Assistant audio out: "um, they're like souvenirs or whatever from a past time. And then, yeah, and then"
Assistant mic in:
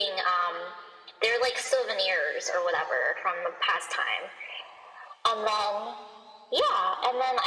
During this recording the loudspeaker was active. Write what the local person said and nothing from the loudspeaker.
none

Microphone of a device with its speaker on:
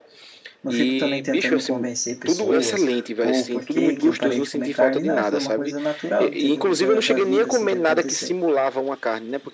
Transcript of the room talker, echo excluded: Não fico também tentando convencer pessoas ou por que que eu parei de comer carne. Não, foi uma coisa natural, entendeu? Da, da vida, assim, que aconteceu.

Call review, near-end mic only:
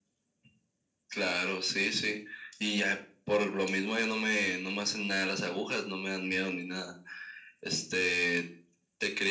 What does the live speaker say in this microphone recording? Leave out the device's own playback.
none

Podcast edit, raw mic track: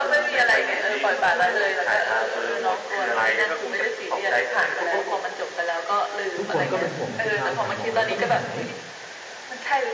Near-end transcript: ทุกคนก็เป็นห่วงไงคือพาไปหาหมอแล้วก็ไม่หาย

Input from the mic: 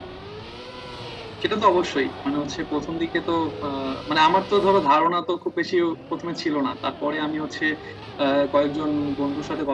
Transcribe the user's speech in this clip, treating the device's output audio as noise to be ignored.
none

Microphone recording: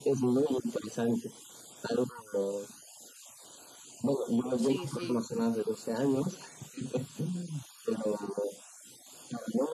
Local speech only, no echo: Sí, sí,

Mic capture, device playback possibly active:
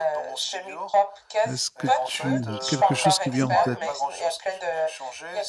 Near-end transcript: Est-ce que tu... quelque chose qui vient en tête?

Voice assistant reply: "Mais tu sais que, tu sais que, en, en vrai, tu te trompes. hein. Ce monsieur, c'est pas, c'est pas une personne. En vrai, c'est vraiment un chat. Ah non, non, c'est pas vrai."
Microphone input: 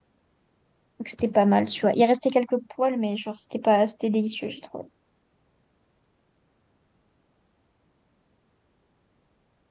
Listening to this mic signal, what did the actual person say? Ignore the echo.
donc c'était pas mal, tu vois. Il restait quelques poils, mais genre, c'était pas, c'était délicieux, j'ai trouvé.

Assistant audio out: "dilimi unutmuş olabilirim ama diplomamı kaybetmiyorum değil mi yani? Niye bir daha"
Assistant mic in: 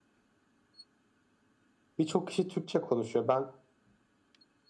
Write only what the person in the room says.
Birçok kişi Türkçe konuşuyor. Ben

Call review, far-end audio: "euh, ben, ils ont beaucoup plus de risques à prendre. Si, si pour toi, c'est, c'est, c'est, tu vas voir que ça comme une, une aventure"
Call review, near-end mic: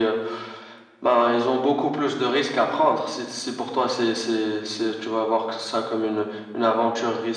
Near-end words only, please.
none

